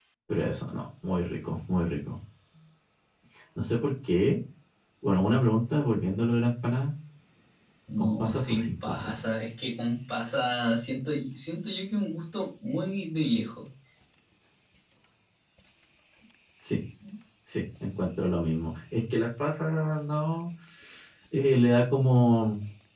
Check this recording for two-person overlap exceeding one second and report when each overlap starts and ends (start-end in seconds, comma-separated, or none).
8.0-9.2